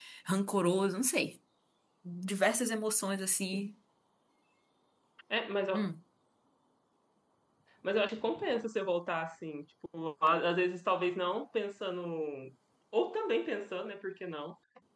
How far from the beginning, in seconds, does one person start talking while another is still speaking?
none

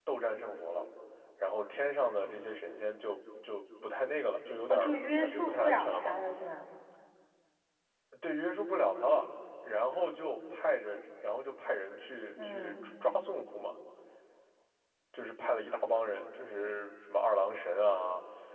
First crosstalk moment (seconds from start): 5 s

